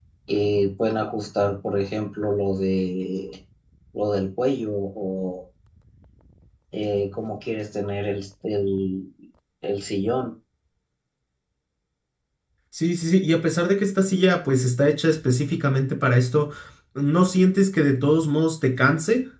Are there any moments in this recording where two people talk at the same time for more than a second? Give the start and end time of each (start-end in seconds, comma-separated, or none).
none